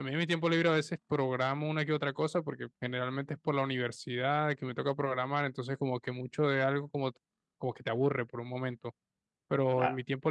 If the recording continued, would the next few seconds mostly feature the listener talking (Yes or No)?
No